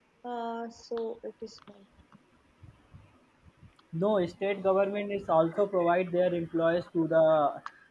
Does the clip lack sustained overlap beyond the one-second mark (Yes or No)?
Yes